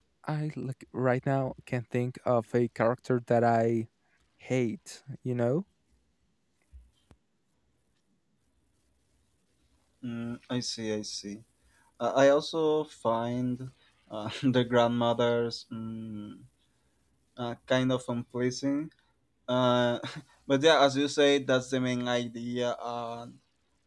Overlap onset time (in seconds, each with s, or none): none